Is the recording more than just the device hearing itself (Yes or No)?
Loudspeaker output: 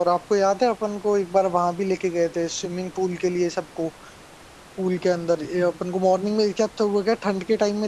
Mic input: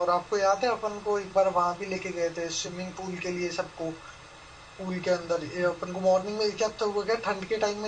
No